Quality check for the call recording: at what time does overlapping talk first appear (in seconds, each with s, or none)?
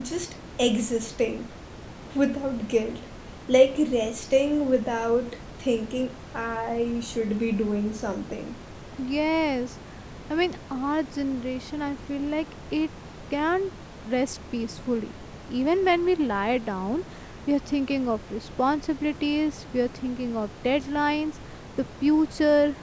none